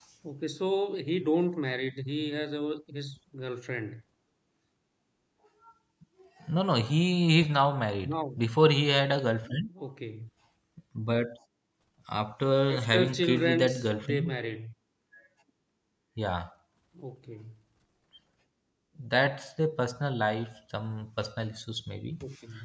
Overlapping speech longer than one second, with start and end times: 12.7-14.4

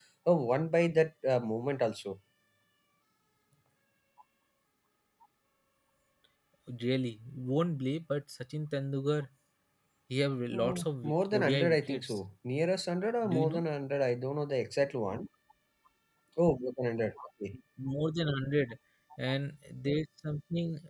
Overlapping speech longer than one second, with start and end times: 10.5-12.2

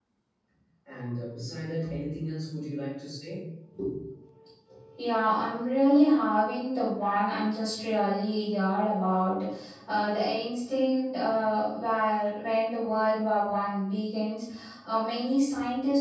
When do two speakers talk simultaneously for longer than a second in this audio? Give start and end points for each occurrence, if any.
none

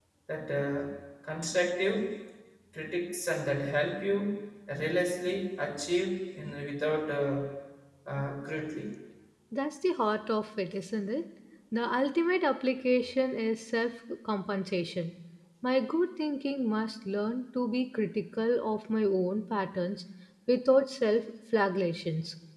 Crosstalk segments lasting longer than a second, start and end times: none

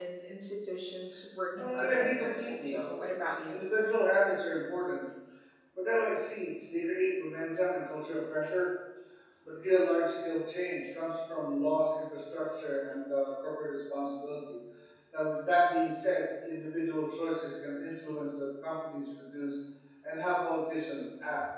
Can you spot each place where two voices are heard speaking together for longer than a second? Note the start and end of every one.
1.5-2.8

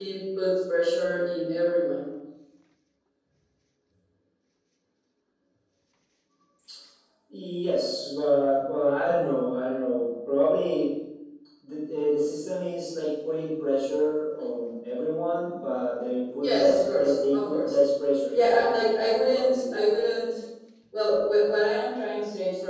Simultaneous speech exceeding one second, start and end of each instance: 16.4-17.7, 18.3-19.8

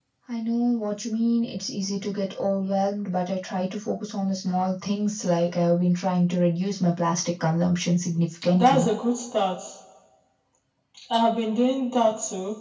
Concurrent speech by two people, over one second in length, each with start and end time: none

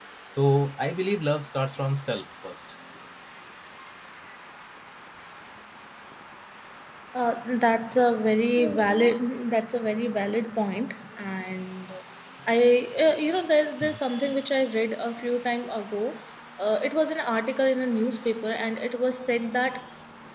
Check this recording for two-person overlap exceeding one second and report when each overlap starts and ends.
none

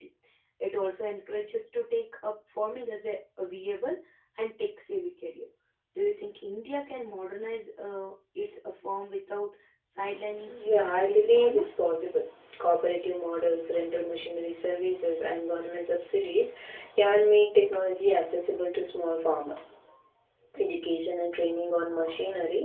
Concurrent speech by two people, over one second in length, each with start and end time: 10.5-11.8

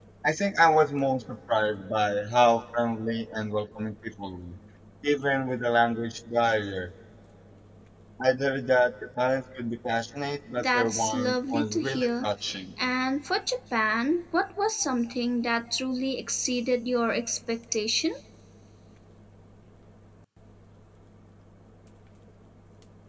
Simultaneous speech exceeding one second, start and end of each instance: 10.6-12.3

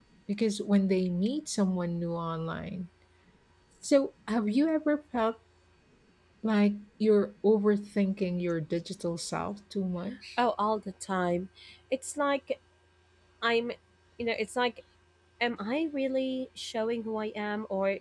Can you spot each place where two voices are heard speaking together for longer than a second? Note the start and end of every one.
none

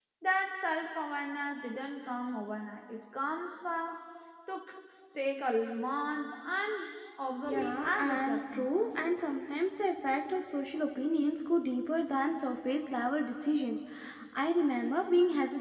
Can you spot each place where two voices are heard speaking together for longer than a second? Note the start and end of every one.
7.4-8.7

